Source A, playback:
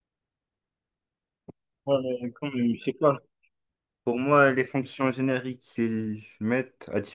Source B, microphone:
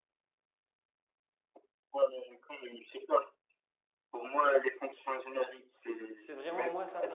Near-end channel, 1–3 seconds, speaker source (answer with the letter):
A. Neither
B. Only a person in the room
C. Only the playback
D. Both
C